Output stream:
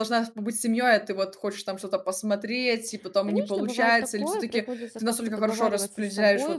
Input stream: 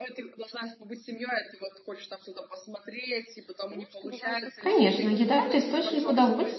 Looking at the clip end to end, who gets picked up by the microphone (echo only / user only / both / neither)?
both